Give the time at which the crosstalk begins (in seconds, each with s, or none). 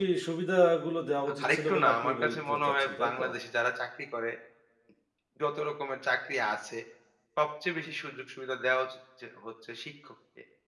1.4 s